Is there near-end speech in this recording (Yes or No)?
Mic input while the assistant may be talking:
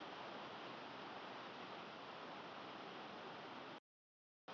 No